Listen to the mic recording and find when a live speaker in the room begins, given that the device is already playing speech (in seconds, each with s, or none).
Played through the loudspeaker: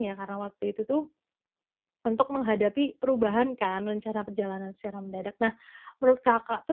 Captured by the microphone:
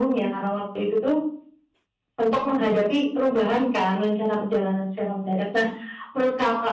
none